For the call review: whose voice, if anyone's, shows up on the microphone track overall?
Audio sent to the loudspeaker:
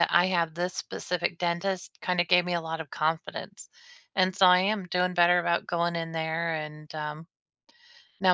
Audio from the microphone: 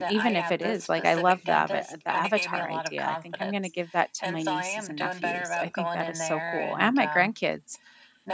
both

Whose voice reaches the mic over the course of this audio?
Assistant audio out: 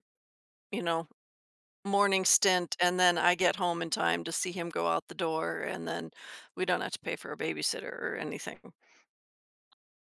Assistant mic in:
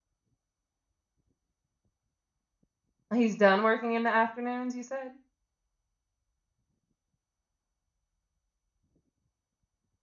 user only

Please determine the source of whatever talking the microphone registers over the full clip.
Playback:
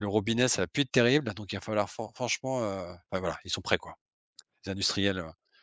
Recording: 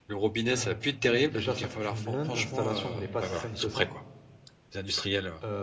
both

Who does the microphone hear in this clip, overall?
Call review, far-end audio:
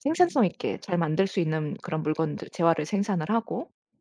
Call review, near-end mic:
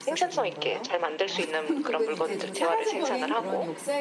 both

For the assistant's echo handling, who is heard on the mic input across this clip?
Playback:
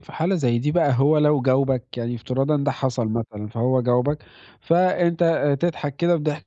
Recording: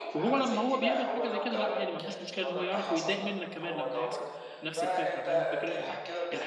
both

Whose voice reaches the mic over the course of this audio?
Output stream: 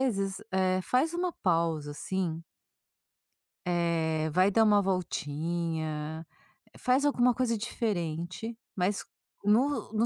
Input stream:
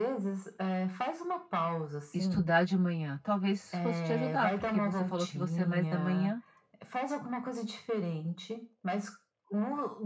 both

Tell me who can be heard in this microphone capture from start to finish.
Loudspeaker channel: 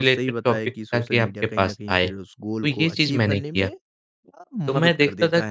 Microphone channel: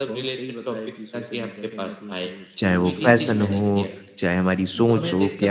both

